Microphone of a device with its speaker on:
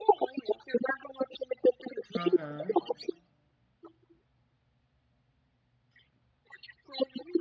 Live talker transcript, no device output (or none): Aham.